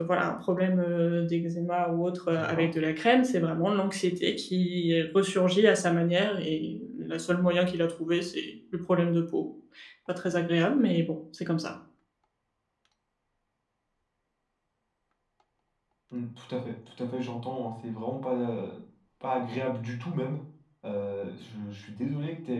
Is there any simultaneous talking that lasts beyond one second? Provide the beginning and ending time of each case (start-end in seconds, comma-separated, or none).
none